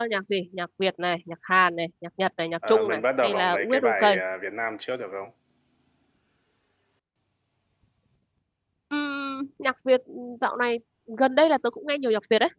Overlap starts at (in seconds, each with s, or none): 2.6 s